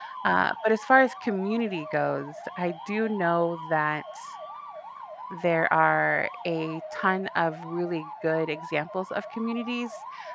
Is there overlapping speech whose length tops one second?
No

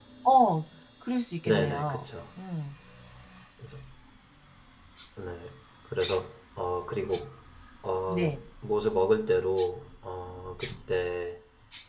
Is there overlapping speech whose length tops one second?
No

